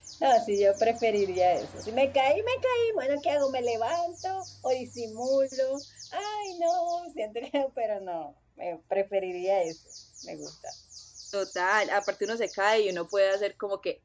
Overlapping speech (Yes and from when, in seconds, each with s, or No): No